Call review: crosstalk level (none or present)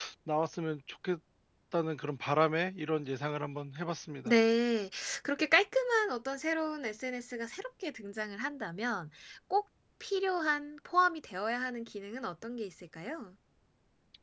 none